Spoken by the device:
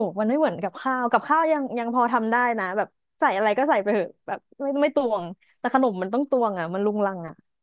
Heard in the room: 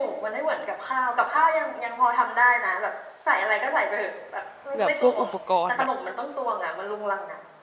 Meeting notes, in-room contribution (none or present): present